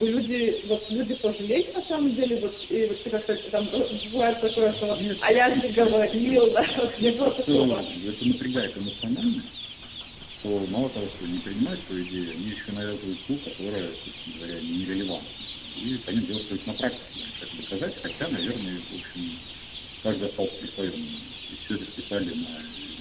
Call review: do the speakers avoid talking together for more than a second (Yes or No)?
No